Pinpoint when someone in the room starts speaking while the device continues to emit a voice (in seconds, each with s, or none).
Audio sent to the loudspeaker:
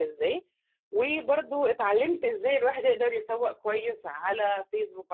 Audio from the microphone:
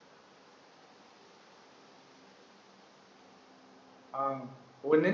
4.1 s